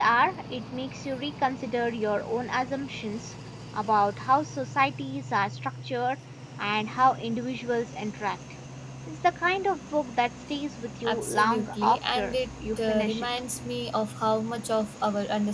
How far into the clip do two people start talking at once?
11.1 s

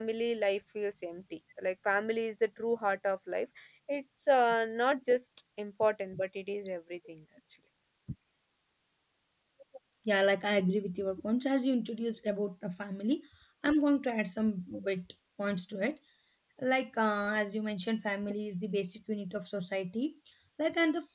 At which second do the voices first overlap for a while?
none

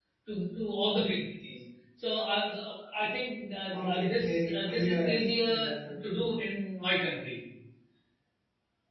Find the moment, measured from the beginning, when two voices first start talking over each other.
3.7 s

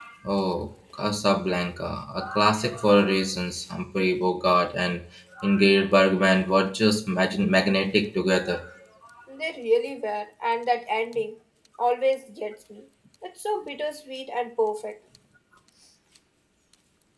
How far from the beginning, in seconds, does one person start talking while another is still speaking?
none

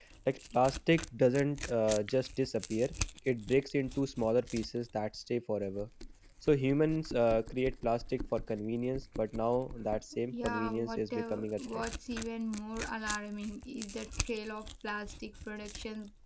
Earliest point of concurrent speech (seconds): 10.3 s

